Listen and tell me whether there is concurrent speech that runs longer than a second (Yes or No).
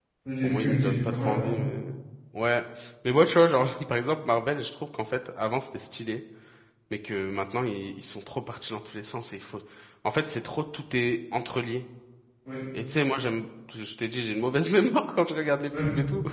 Yes